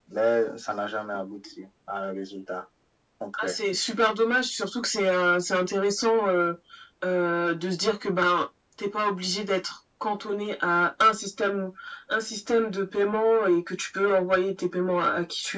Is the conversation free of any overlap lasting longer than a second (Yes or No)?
Yes